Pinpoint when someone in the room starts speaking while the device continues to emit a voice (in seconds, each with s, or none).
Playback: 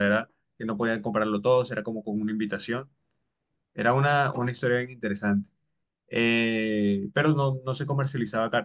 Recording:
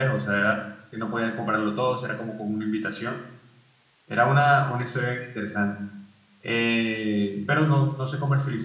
none